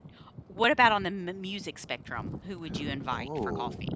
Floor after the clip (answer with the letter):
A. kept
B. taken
B